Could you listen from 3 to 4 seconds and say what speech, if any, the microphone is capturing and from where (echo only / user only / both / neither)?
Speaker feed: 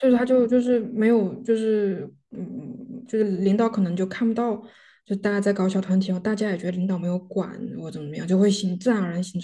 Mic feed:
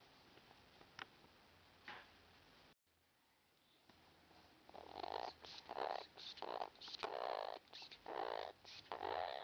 neither